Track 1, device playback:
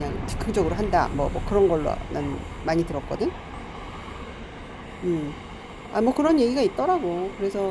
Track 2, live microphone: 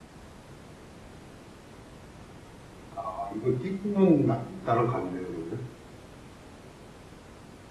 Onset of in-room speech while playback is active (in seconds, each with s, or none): 3.0 s